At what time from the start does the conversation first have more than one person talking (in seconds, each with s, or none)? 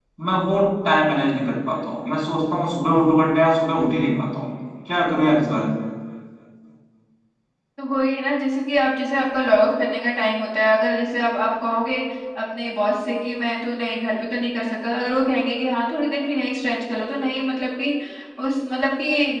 none